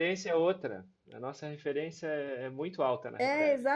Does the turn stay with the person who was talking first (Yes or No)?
No